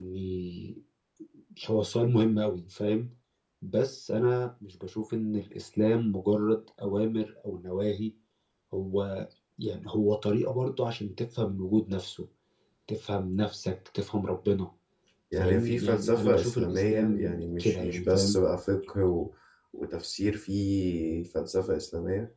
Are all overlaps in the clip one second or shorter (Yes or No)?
No